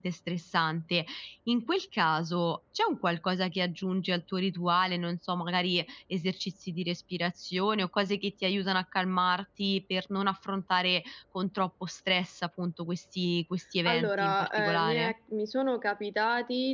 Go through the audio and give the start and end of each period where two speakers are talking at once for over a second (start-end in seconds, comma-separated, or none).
13.8-15.1